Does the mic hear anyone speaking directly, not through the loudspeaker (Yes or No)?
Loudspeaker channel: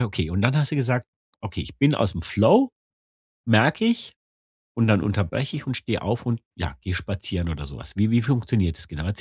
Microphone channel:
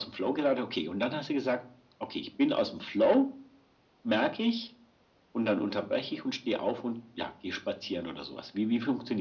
No